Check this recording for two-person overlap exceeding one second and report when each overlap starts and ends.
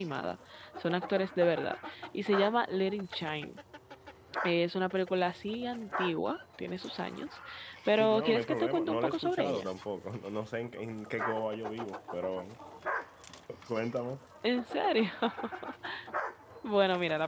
8.0-9.7

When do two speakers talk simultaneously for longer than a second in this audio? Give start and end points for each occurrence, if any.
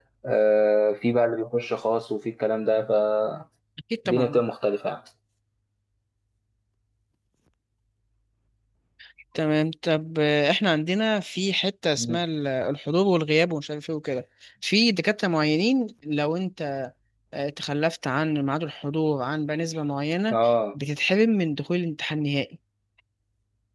none

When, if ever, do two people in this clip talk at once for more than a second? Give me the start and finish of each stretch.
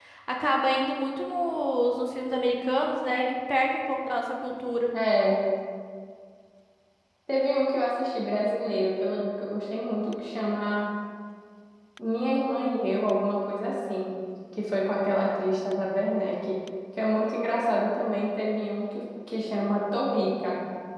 none

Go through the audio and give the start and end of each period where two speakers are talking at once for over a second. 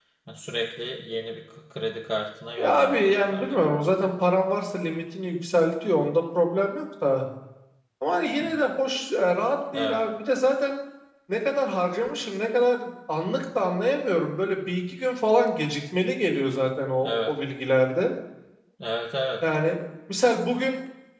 2.6-3.9

